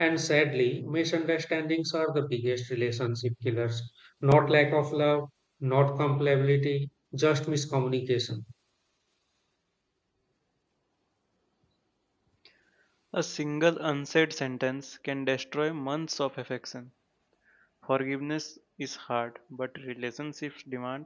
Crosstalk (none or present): none